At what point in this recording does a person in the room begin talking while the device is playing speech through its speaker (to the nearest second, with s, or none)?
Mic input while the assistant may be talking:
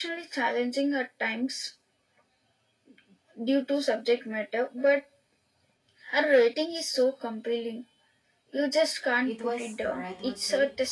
9 s